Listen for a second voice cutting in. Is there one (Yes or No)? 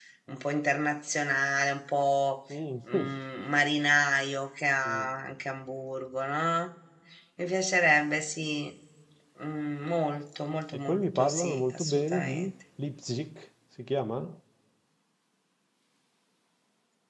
Yes